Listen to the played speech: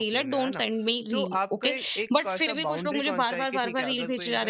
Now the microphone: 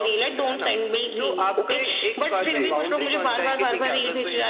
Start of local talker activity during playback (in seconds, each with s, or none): 2.4 s